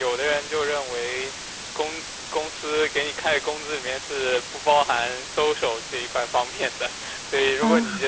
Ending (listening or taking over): listening